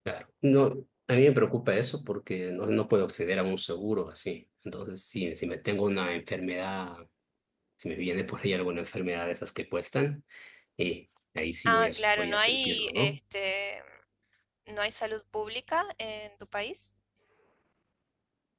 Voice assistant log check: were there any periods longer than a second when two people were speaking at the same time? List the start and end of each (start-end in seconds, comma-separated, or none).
11.6-13.2